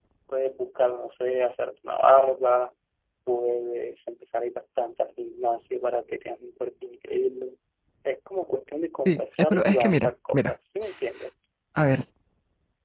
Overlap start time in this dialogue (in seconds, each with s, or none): 9.1 s